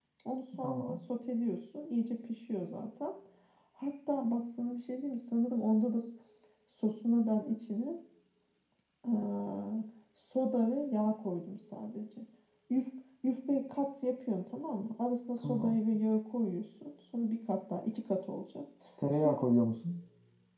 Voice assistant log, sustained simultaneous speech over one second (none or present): none